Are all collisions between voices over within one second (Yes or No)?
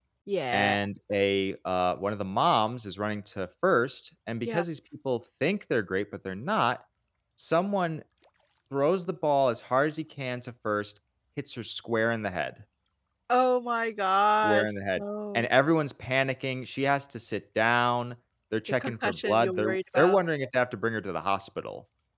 No